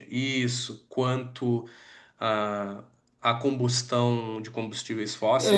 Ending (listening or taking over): taking over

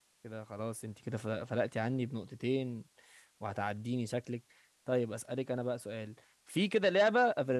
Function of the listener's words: listening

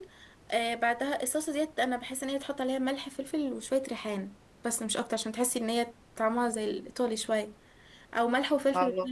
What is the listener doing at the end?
listening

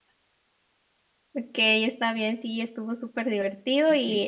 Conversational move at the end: listening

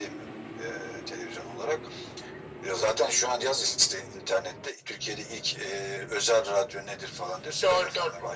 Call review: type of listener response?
taking over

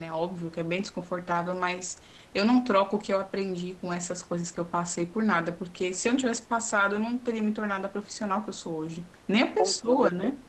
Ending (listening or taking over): taking over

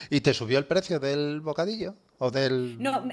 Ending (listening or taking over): taking over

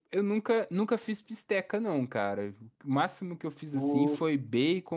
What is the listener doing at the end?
listening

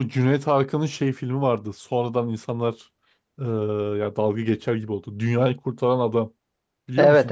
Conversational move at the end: taking over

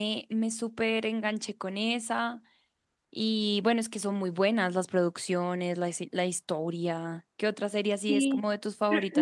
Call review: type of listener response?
taking over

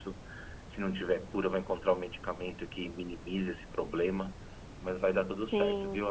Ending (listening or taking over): taking over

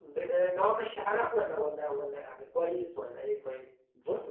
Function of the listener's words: taking over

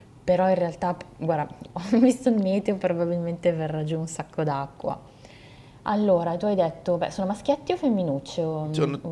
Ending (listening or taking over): taking over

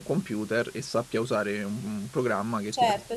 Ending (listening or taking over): taking over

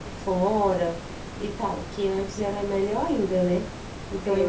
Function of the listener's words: taking over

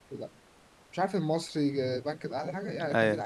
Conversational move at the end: listening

